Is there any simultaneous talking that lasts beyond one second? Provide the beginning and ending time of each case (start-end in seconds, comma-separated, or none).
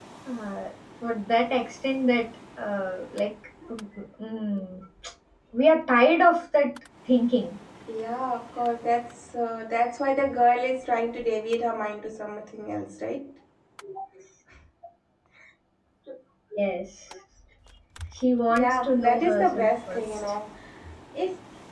18.5-20.3